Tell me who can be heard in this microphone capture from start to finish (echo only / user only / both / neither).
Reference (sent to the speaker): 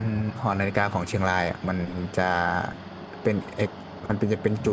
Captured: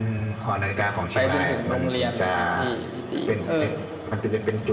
both